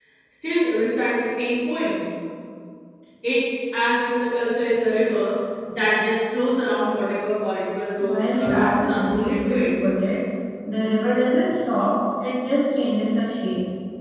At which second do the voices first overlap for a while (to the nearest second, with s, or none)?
8 s